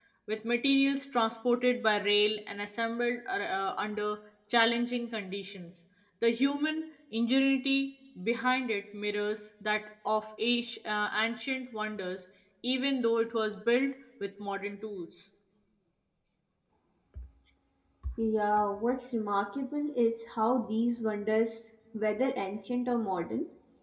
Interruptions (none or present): none